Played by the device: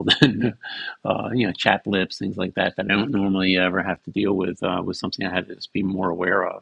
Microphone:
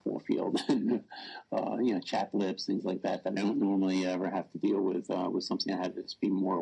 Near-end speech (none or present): none